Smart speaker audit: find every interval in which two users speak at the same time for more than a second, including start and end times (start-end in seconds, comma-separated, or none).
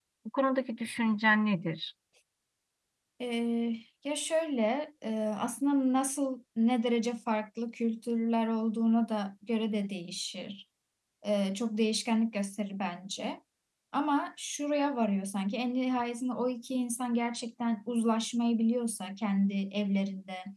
none